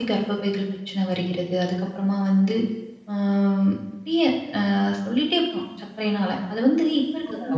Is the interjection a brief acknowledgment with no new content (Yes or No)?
No